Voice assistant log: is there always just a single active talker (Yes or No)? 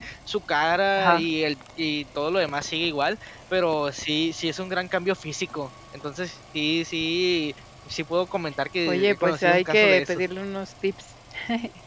No